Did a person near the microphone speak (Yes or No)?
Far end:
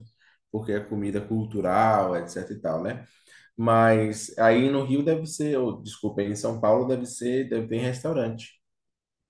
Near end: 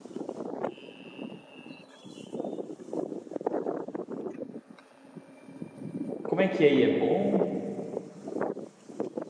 Yes